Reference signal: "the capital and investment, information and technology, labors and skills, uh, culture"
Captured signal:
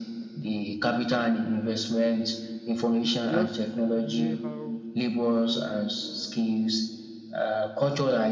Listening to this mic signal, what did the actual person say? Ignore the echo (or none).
It's just the way how